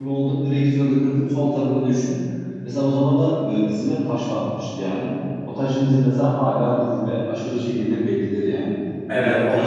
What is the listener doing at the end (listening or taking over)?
taking over